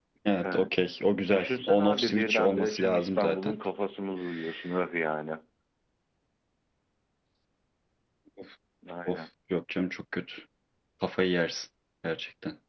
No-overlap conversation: No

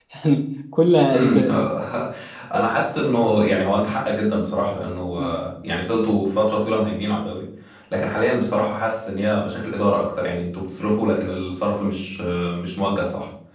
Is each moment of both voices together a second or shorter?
Yes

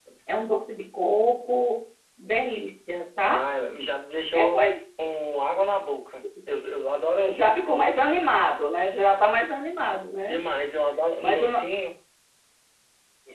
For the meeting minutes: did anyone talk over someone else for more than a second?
No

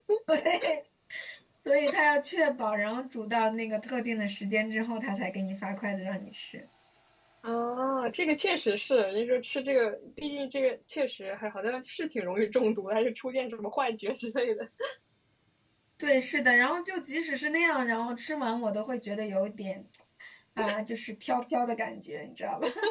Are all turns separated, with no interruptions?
Yes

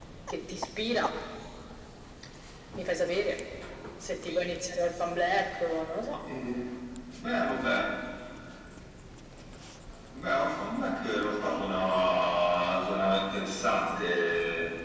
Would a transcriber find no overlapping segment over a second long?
Yes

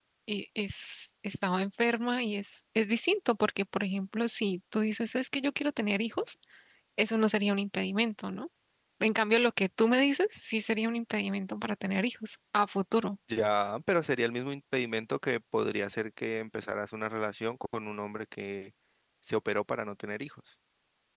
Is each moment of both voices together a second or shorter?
Yes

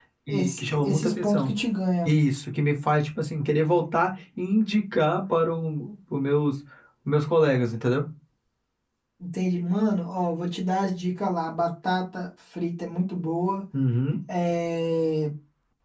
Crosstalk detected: Yes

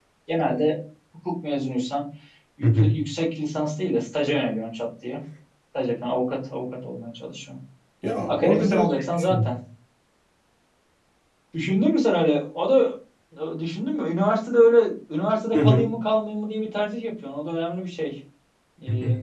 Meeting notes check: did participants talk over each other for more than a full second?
Yes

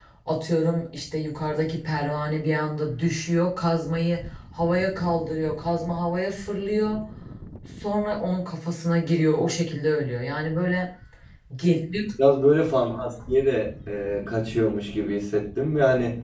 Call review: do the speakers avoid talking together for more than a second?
Yes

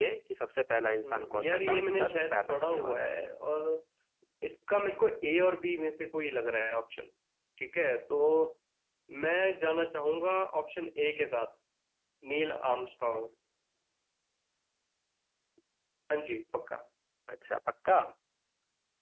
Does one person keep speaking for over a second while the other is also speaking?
Yes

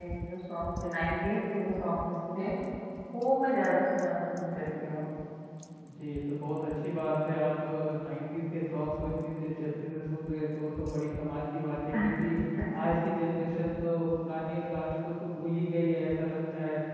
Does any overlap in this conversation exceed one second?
No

